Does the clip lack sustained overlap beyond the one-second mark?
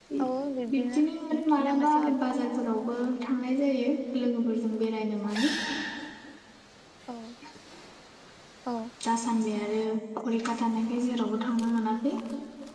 No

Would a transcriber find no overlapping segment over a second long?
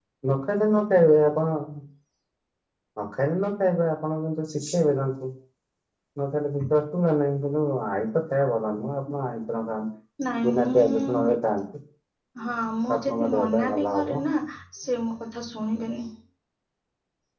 No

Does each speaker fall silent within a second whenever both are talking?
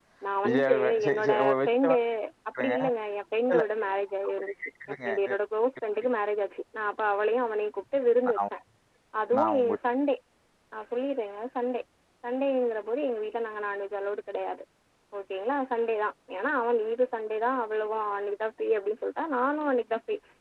No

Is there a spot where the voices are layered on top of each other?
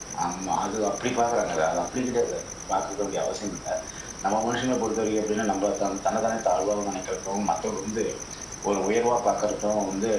No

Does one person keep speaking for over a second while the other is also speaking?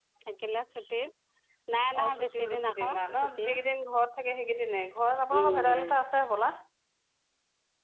Yes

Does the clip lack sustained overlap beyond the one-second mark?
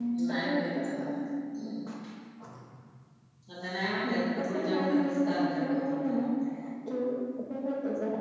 No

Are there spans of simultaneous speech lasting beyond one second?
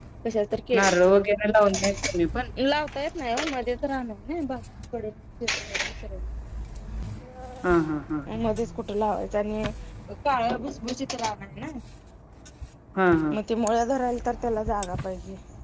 No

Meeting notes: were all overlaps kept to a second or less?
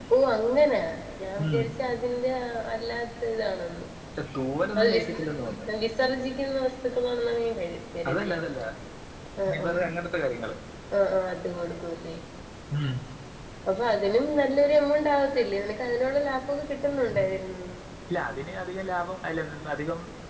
Yes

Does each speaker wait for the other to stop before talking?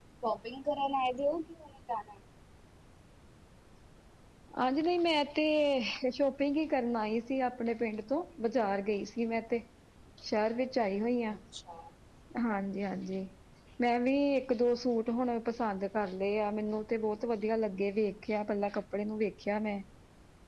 Yes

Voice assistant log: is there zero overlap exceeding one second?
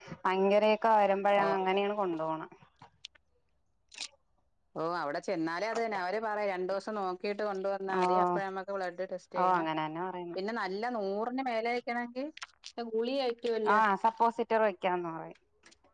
Yes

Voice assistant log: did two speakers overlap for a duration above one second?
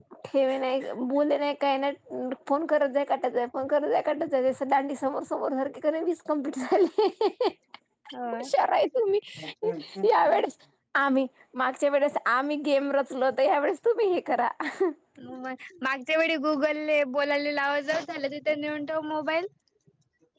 No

